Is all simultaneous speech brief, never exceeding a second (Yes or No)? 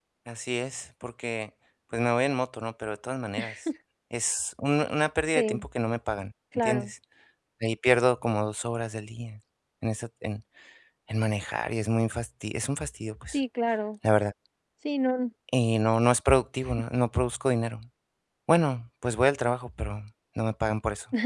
Yes